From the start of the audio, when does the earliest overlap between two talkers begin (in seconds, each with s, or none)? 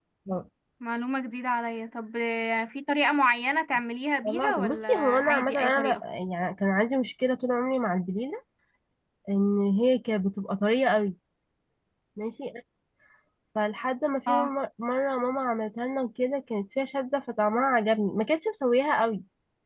4.3 s